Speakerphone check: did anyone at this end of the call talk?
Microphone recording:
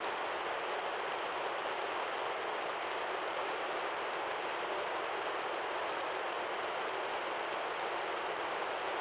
No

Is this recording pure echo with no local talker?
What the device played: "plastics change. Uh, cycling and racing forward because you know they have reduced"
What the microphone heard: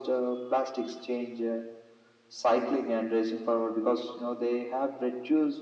Yes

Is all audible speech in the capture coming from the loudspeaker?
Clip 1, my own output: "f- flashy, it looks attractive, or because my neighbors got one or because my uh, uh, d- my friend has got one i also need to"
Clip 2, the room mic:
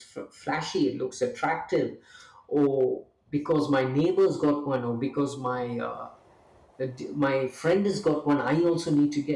Yes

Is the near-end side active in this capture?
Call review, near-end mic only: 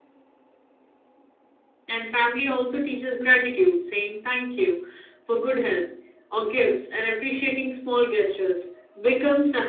No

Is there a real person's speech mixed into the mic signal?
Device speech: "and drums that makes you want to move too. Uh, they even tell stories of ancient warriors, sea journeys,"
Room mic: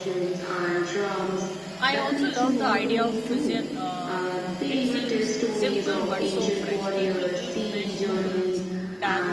Yes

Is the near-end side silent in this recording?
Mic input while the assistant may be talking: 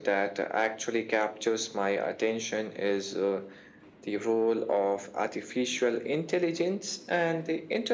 Yes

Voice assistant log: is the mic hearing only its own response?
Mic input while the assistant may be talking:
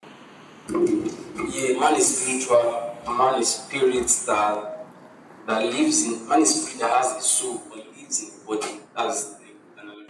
Yes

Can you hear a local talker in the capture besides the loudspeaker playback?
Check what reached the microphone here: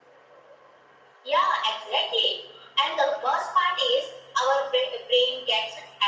No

